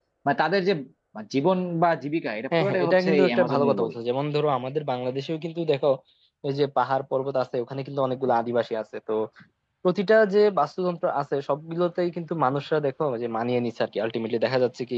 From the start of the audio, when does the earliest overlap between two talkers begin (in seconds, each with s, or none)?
2.5 s